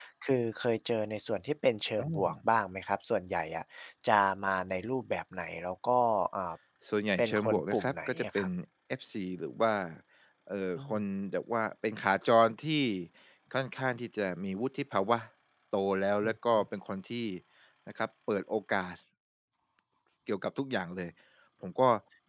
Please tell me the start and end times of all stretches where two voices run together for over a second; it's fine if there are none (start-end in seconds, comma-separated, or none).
7.2-8.5